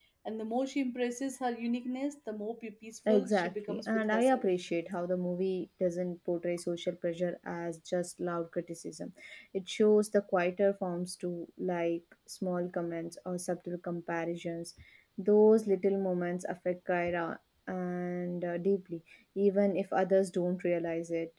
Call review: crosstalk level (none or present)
present